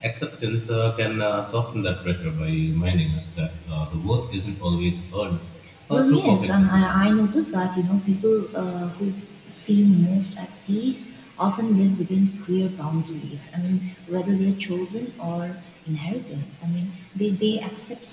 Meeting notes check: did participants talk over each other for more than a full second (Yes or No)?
Yes